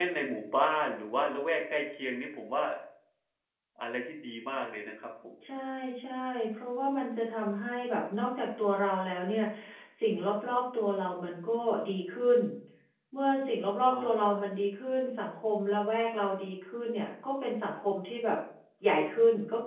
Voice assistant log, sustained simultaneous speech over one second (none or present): none